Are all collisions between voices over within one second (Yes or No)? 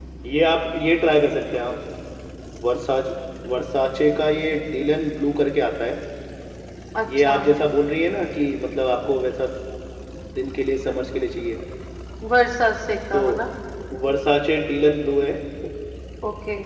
Yes